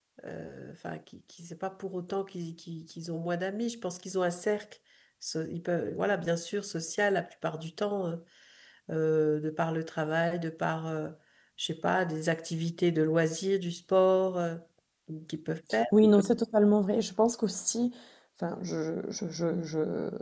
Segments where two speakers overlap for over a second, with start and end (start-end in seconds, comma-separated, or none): none